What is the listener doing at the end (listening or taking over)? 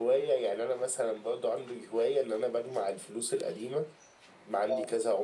listening